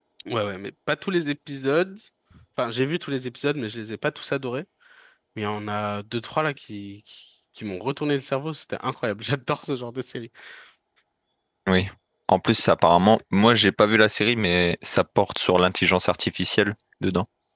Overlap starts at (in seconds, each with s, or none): none